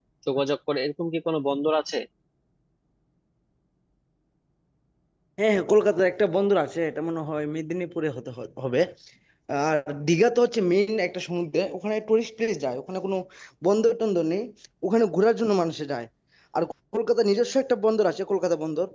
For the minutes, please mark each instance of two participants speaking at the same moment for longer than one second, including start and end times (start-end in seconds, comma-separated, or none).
none